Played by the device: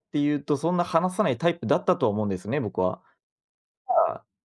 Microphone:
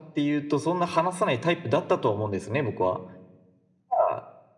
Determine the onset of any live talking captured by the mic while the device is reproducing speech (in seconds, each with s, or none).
none